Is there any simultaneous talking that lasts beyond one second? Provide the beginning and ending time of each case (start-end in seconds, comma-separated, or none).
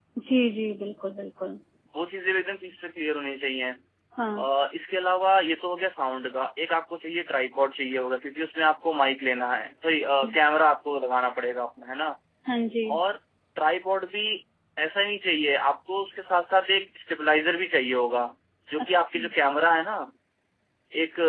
none